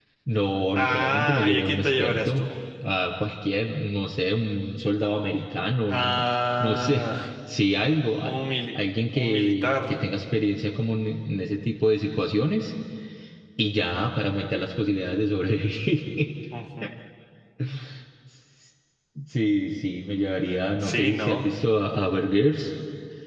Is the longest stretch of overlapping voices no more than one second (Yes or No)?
No